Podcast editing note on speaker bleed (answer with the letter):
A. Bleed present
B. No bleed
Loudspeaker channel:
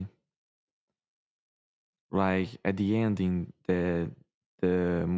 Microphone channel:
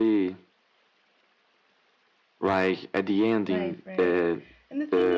A